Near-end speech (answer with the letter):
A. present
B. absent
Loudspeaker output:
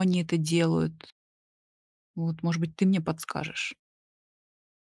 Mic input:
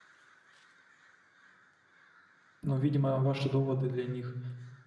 A